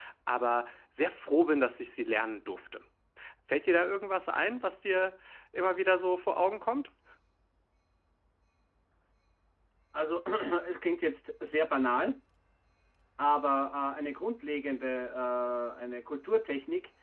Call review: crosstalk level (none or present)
none